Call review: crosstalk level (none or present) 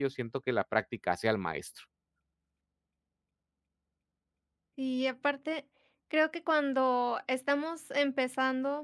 none